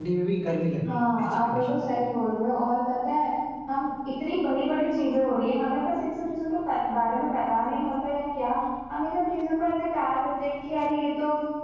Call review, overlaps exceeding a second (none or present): present